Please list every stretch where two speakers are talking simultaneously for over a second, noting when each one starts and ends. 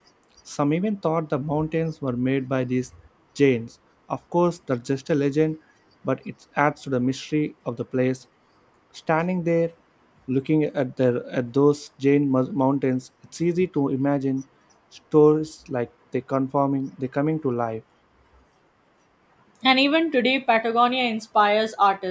none

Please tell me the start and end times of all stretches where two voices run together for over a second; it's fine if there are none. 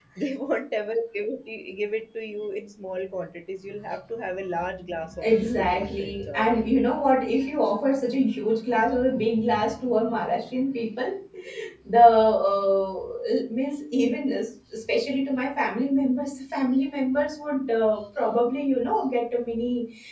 5.2-6.6

